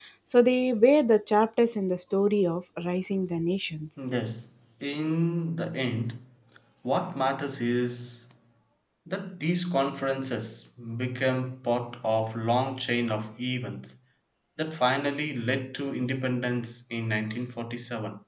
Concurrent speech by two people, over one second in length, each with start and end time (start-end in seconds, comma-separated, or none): none